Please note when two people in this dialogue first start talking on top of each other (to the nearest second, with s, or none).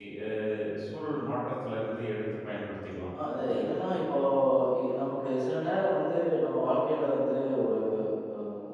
none